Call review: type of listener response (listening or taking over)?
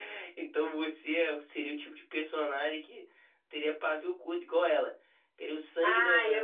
taking over